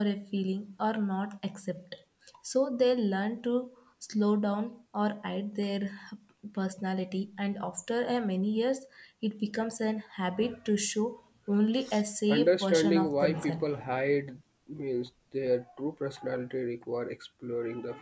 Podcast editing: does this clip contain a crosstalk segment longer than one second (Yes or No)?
Yes